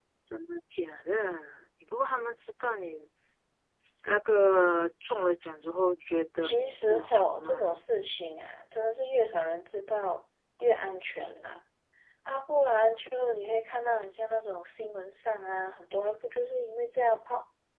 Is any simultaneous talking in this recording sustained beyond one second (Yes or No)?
Yes